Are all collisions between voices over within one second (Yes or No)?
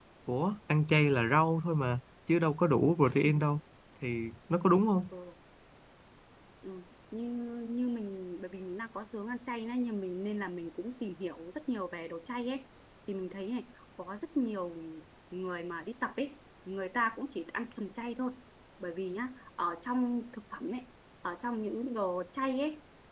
Yes